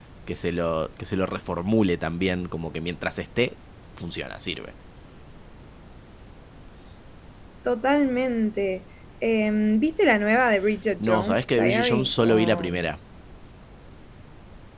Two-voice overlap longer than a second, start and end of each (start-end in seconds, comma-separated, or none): 11.0-12.7